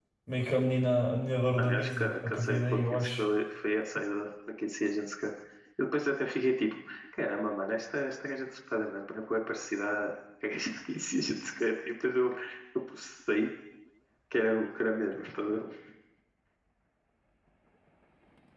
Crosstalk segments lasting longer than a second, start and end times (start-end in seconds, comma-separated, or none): 1.6-3.2